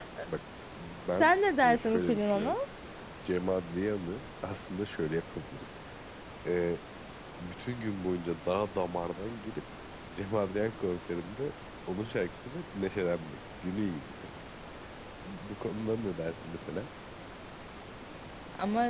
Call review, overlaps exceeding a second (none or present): present